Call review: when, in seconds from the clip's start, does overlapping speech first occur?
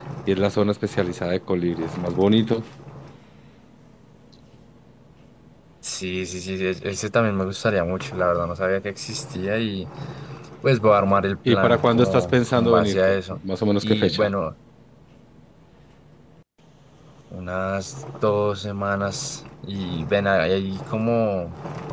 11.5 s

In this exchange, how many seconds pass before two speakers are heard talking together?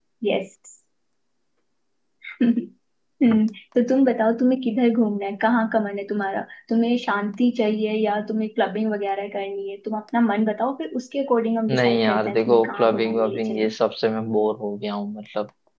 11.7 s

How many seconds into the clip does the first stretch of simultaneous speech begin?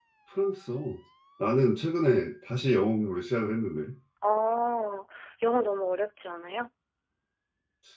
none

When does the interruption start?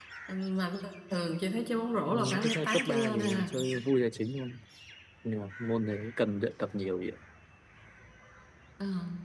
2.1 s

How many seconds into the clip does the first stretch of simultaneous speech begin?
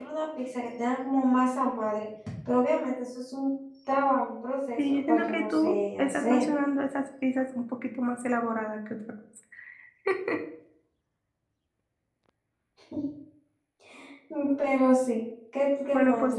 4.8 s

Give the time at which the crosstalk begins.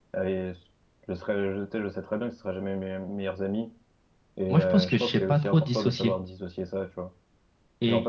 4.5 s

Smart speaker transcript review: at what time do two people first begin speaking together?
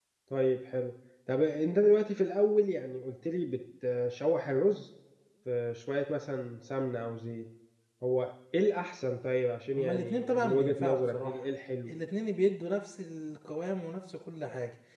9.8 s

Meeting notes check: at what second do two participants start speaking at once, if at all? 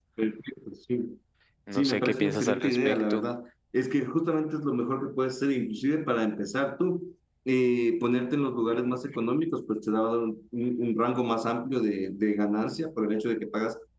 1.8 s

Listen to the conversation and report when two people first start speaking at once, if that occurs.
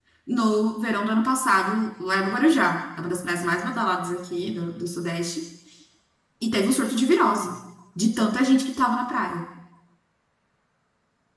none

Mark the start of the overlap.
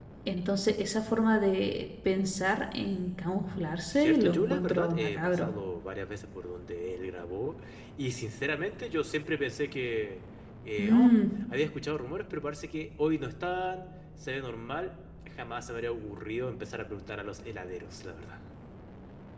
3.9 s

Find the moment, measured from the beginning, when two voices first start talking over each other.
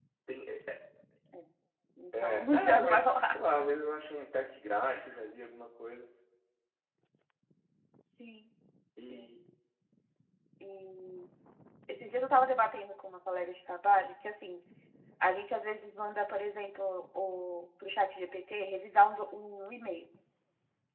2.1 s

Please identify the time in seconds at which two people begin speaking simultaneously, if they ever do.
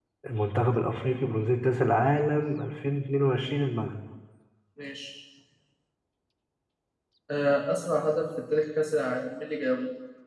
none

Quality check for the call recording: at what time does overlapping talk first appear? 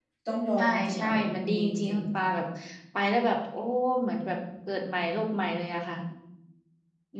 0.6 s

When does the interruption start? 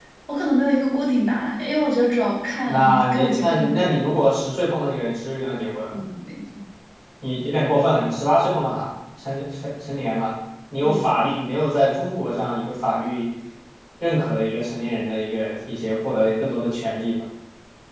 2.7 s

